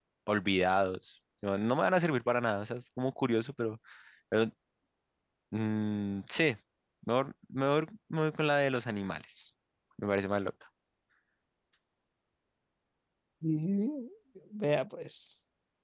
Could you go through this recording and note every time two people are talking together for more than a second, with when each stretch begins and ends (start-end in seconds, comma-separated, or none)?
none